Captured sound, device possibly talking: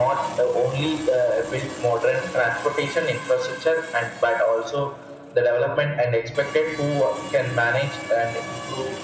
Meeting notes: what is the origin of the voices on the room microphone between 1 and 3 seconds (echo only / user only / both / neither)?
echo only